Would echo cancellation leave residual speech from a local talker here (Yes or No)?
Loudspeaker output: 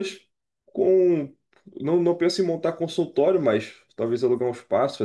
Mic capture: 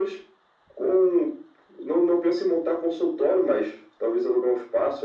No